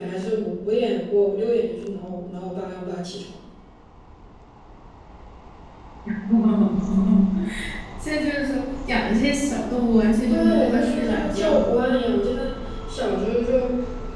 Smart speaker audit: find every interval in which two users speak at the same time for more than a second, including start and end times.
10.3-11.7

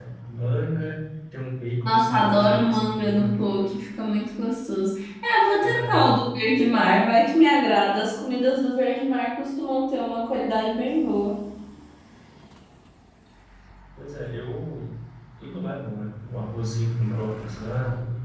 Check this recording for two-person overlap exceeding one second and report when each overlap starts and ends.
1.8-3.3

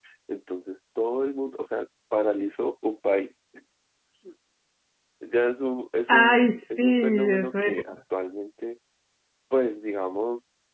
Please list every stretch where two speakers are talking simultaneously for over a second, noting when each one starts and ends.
6.1-7.7

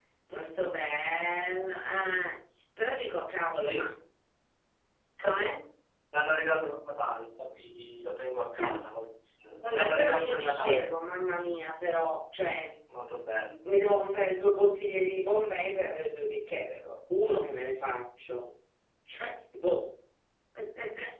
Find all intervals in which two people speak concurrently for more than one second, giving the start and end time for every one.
9.6-11.0

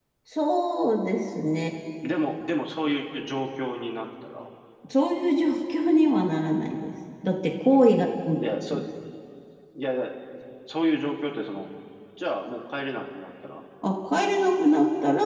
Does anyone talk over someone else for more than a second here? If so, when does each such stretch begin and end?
none

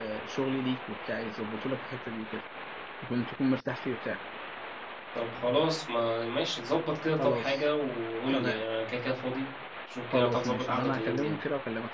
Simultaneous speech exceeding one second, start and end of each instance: 10.1-11.3

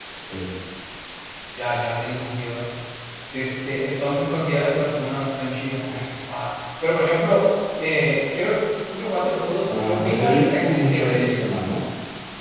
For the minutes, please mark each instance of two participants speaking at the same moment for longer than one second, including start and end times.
9.7-11.4

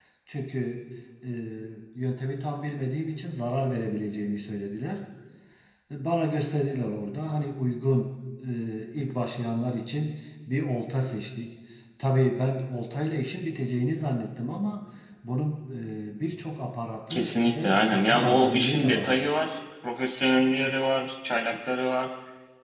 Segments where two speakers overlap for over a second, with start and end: 17.1-19.3

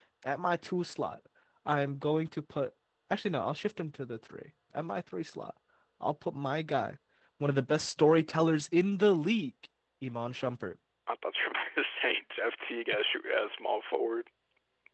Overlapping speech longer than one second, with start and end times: none

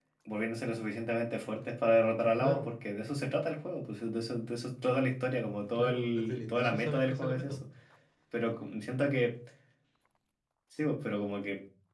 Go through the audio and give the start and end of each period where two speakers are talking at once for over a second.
5.8-7.6

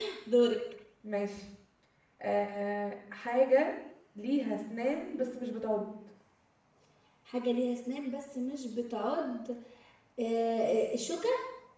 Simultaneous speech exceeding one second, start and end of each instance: none

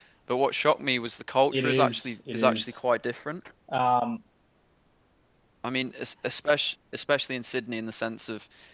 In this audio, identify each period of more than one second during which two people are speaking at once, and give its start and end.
1.5-2.8

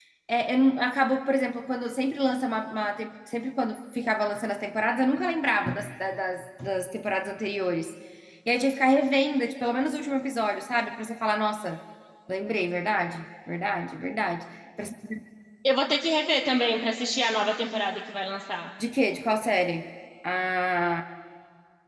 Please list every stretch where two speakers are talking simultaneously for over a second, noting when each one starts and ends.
none

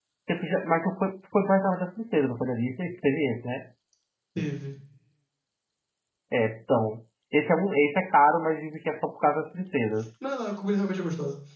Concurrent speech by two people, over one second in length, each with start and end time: none

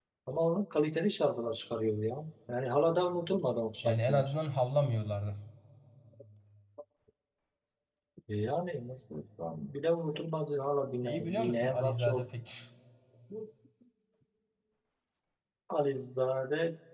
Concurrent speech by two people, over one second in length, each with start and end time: 11.0-12.3

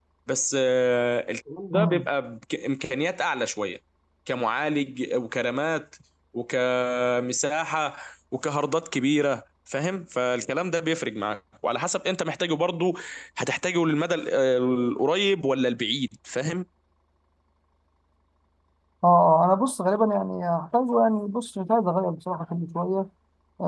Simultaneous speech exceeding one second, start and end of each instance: none

